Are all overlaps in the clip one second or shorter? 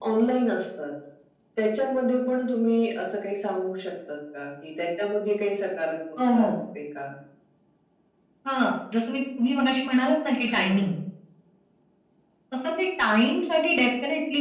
Yes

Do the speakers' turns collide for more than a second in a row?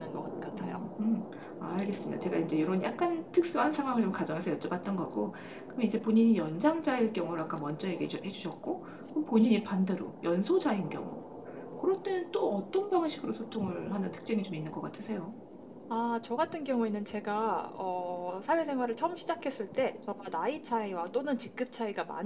No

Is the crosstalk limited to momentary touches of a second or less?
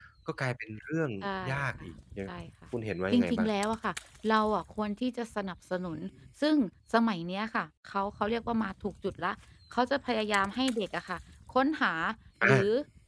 Yes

